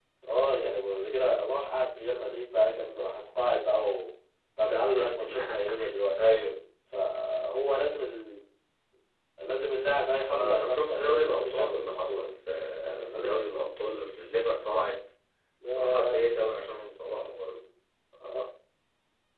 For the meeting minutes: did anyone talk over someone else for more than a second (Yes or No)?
Yes